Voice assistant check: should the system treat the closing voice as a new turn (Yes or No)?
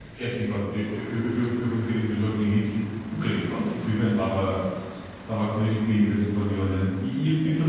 No